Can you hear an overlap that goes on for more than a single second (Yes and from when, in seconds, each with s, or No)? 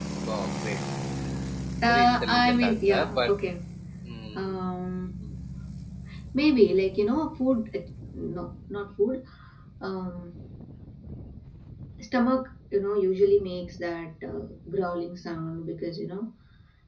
Yes, from 1.9 s